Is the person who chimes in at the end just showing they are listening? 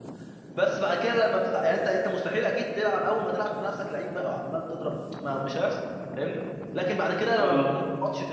Yes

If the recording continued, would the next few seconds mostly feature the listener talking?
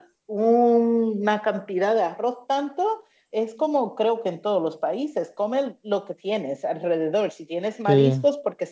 No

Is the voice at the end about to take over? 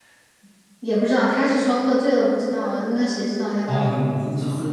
Yes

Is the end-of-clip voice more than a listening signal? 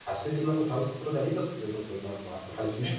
Yes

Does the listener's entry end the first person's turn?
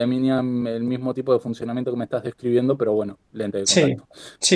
Yes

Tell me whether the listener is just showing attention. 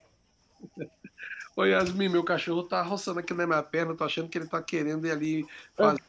Yes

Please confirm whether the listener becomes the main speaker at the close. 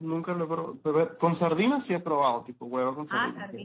Yes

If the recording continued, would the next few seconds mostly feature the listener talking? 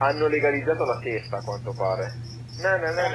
Yes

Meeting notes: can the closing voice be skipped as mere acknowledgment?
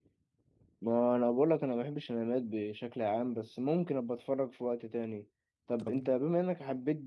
Yes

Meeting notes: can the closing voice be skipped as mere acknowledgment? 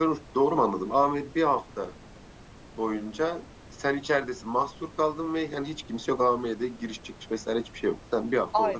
No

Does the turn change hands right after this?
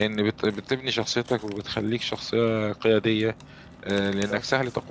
No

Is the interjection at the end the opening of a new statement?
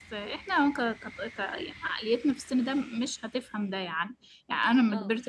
No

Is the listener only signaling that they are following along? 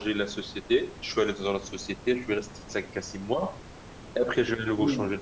Yes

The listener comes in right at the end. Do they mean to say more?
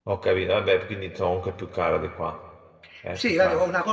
Yes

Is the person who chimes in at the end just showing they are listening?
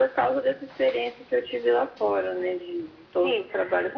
No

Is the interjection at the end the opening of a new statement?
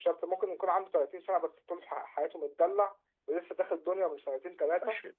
Yes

